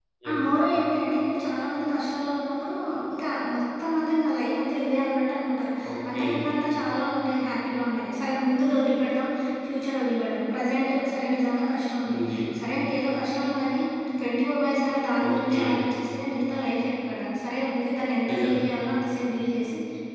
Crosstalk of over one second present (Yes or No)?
No